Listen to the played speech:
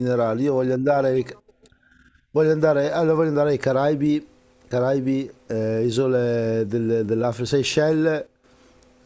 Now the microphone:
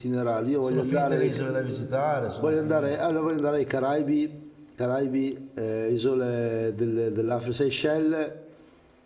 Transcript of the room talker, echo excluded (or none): Sono finite le isole da visitare, sono finite.